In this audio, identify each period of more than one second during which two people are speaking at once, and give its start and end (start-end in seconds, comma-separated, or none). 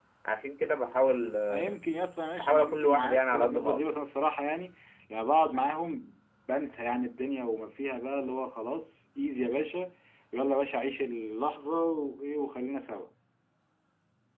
2.4-3.8